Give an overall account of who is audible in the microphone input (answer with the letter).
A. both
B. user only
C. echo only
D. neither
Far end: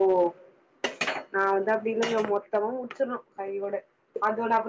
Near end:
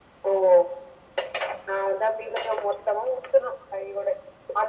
C